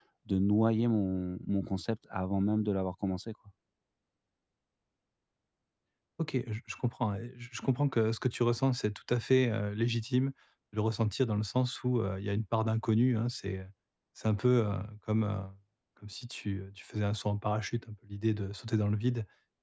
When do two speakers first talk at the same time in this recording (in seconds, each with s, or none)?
none